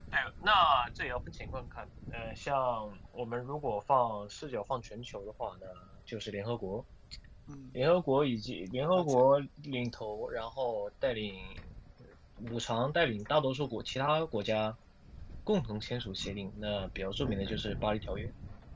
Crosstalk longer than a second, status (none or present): none